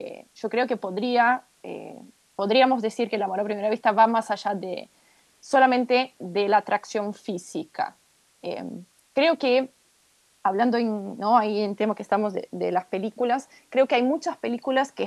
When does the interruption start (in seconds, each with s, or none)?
none